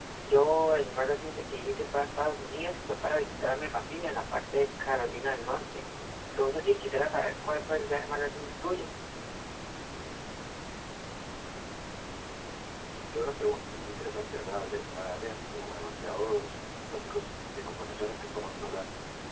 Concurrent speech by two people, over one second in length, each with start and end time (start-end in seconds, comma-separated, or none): none